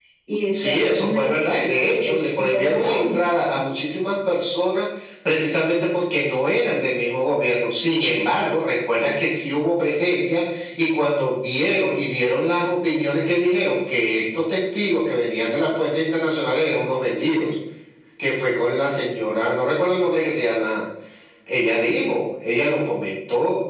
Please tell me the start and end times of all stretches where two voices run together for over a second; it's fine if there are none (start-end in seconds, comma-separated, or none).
0.5-3.2